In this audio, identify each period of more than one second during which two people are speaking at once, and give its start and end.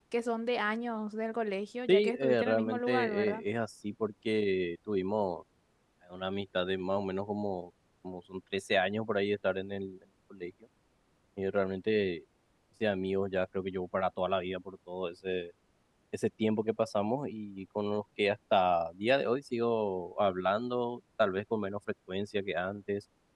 1.9-3.4

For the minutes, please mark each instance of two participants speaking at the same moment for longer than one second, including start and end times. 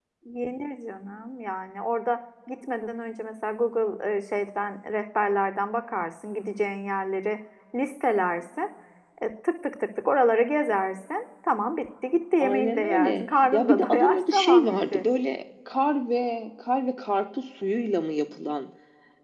12.4-15.0

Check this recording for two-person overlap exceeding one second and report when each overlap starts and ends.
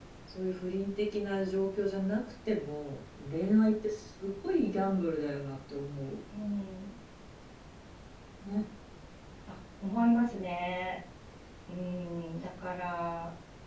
none

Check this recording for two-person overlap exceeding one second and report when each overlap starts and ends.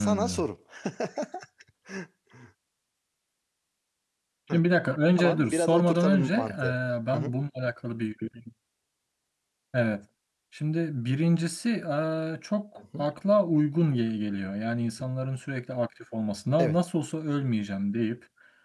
5.2-6.8

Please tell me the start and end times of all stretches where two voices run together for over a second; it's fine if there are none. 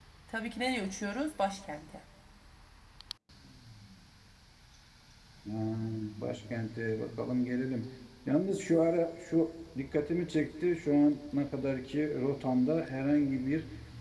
none

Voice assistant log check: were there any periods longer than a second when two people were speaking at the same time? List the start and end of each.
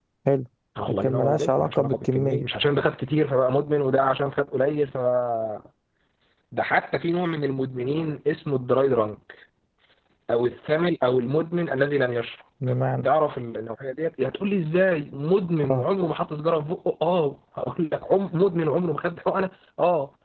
0.9-2.4

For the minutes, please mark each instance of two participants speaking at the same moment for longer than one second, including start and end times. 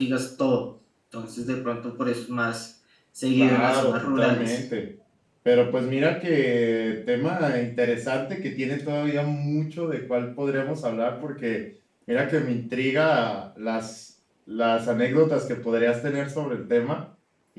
3.4-4.6

